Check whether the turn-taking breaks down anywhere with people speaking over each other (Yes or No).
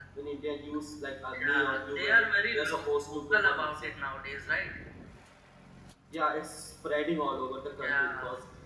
Yes